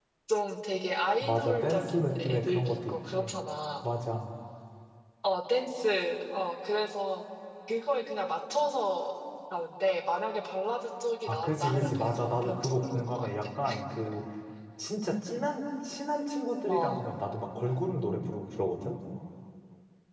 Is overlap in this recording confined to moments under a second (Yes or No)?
No